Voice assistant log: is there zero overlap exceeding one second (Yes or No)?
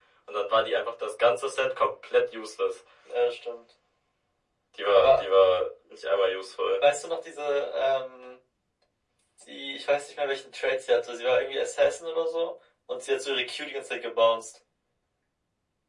Yes